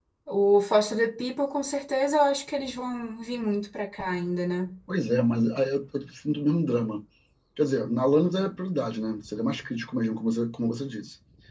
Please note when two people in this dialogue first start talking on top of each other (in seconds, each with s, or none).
none